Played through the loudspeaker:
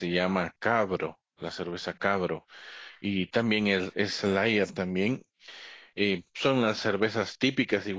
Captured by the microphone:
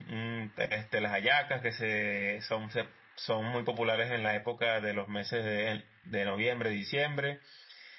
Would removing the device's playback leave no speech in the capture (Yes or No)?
No